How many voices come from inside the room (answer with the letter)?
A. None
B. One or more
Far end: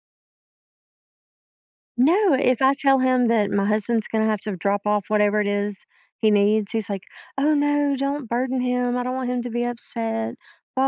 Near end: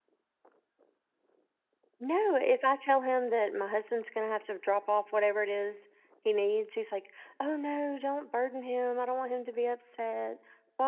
A